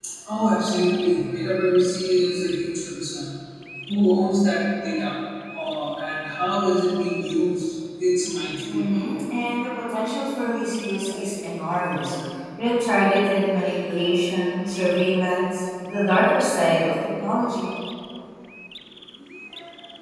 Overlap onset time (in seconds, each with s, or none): none